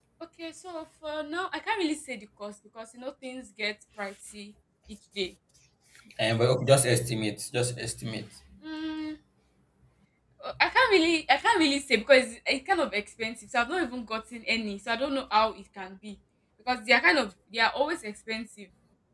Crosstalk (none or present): none